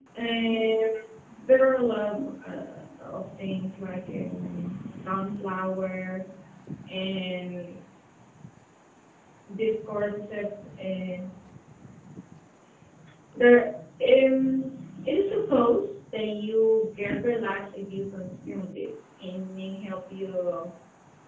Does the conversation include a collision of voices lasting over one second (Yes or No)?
No